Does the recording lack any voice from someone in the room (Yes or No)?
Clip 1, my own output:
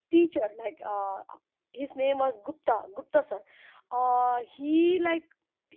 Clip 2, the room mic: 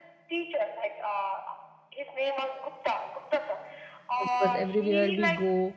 No